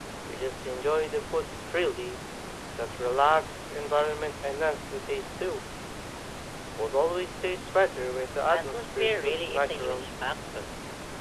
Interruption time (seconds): 8.5 s

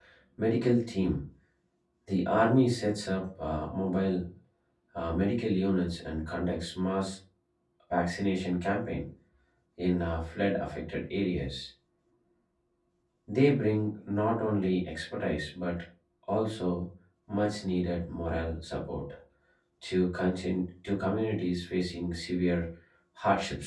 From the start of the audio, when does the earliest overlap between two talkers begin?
none

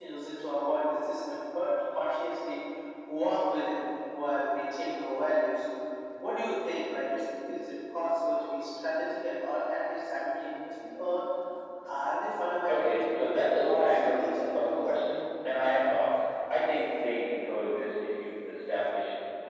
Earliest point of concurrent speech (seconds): 12.7 s

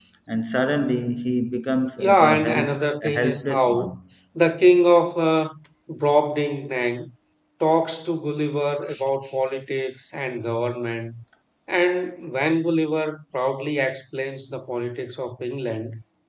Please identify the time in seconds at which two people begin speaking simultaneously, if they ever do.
2.0 s

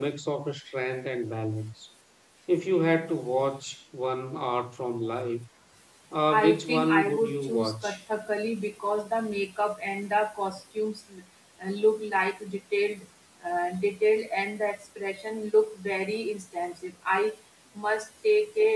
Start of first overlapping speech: 6.3 s

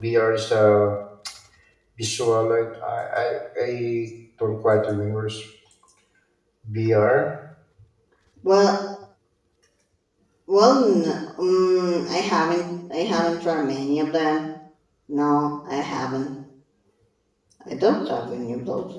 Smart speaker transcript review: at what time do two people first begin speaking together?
none

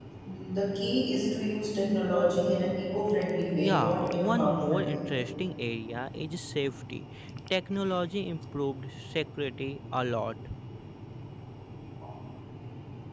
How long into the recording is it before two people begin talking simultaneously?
3.5 s

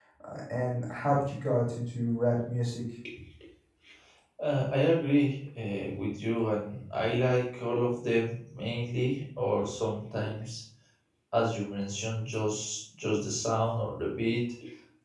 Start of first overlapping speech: none

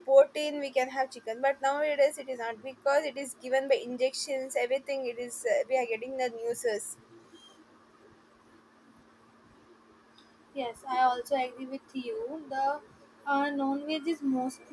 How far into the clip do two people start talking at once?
none

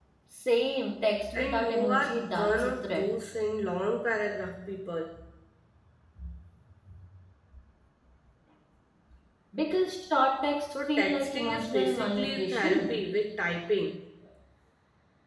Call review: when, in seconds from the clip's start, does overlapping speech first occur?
1.3 s

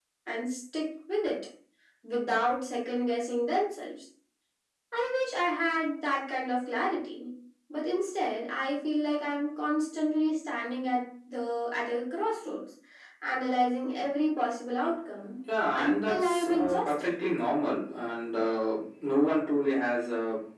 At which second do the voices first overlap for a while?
15.7 s

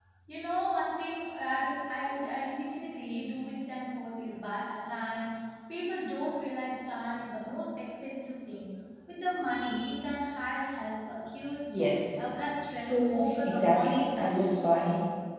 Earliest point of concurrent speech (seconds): 12.6 s

